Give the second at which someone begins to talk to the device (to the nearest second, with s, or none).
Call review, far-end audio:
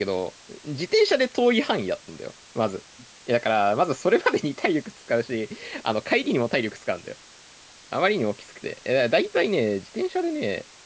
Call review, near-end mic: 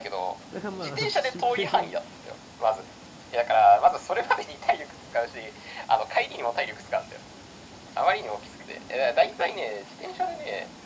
1 s